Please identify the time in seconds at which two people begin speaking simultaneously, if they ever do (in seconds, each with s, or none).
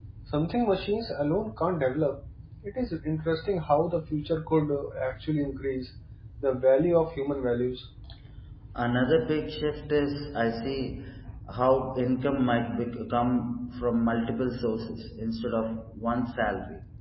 none